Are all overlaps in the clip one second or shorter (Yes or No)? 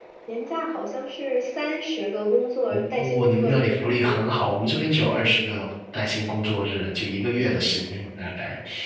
No